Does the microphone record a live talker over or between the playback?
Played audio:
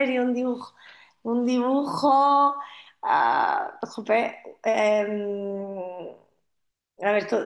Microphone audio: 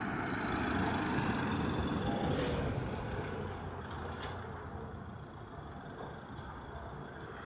No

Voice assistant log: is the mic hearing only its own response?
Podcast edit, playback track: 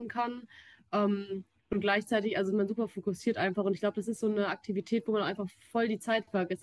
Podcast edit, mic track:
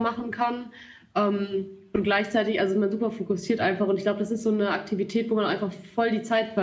Yes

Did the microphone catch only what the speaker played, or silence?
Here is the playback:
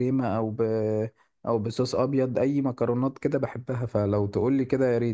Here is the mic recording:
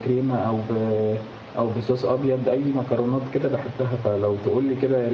Yes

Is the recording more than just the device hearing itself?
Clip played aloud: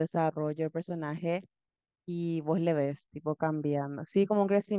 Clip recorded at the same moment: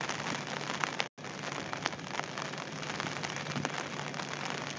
No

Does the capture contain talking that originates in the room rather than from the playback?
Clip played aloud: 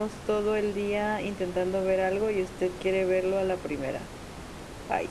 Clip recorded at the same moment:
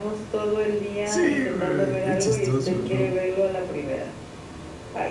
Yes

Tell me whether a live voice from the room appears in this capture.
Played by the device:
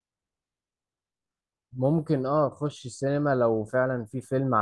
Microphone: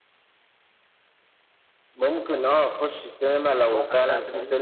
Yes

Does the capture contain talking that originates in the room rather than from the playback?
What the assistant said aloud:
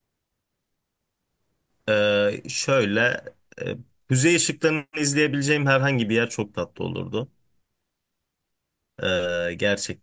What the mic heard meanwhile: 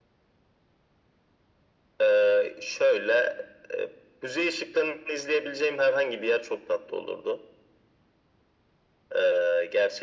No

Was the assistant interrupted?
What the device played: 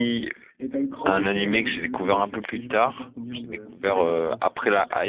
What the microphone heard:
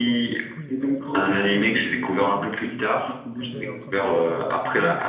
Yes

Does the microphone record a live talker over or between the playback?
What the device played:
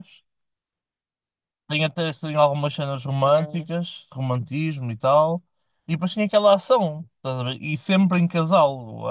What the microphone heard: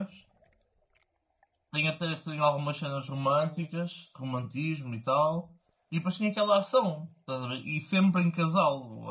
No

